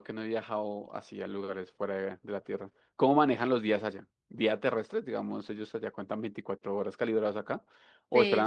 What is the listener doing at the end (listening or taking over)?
taking over